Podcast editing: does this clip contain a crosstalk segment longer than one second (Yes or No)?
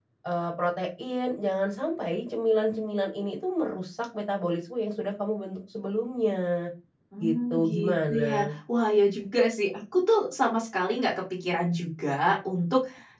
Yes